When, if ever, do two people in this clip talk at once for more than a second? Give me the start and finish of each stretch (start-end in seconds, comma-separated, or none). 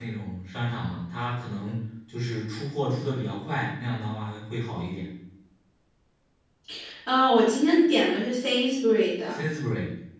none